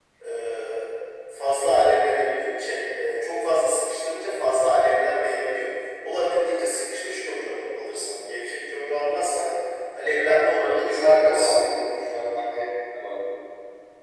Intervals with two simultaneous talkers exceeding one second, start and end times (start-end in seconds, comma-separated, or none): 10.3-11.5